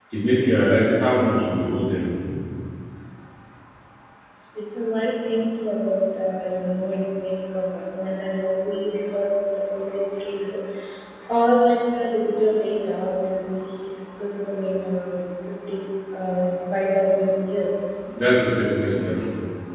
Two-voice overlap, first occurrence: none

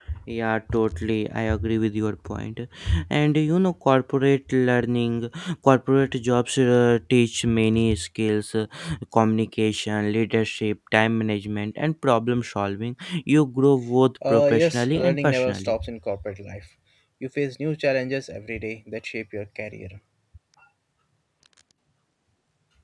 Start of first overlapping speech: 14 s

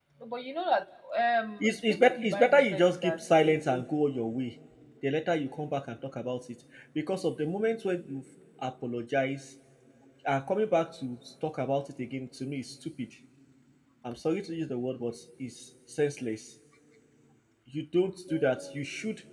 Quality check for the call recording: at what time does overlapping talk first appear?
2 s

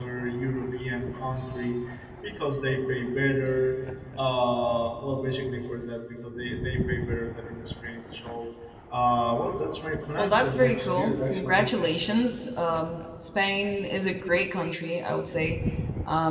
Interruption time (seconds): 10 s

